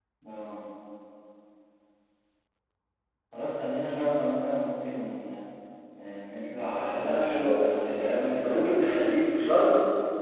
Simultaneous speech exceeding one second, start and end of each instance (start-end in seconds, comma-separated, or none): 6.7-8.8